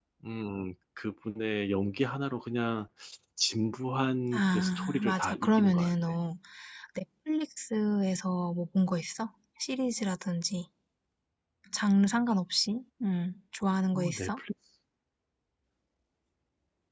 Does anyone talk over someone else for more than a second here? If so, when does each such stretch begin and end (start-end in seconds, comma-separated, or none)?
4.3-6.1